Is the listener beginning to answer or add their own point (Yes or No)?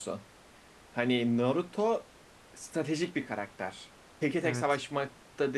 No